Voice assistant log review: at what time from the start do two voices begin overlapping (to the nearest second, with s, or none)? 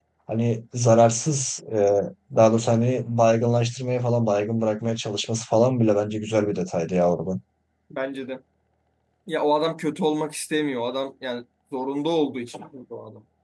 none